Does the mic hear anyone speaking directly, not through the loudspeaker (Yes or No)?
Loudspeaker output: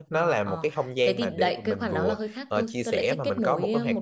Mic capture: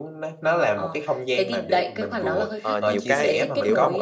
Yes